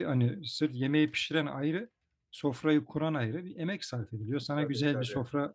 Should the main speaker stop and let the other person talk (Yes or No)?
No